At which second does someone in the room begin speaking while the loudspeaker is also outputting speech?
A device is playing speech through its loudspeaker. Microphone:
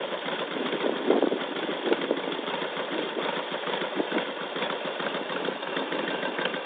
none

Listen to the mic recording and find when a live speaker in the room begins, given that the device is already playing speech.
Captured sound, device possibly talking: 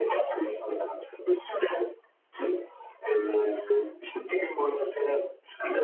none

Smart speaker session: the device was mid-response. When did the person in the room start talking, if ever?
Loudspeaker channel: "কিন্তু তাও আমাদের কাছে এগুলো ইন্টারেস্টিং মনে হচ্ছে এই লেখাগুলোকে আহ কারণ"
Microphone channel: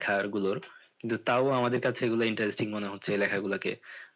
none

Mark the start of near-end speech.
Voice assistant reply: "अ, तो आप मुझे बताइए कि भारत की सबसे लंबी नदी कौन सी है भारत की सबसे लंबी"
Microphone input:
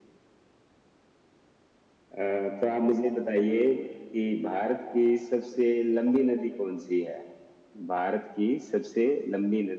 none

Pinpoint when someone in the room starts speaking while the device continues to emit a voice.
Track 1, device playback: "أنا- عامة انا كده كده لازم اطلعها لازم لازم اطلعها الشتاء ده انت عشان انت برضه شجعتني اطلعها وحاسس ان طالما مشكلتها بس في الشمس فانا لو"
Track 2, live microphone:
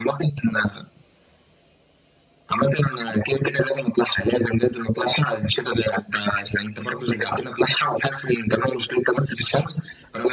none

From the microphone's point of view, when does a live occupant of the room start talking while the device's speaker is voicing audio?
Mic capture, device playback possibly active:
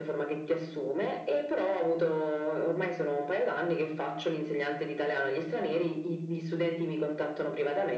none

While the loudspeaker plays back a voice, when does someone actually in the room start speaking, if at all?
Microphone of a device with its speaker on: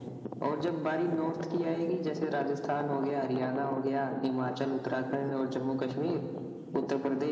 none

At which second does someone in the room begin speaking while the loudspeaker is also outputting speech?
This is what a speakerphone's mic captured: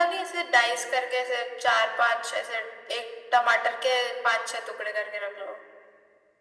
none

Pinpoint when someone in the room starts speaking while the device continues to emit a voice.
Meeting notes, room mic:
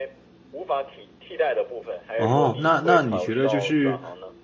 2.2 s

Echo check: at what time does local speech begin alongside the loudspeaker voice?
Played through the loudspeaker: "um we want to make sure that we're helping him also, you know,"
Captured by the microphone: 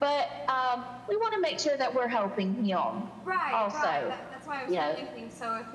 3.2 s

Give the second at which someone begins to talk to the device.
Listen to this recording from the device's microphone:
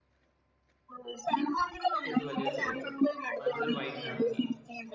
2.1 s

